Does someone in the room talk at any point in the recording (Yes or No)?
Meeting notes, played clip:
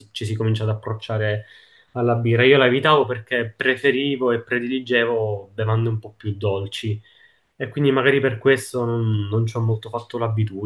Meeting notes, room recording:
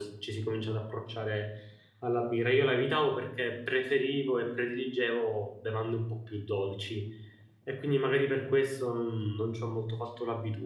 No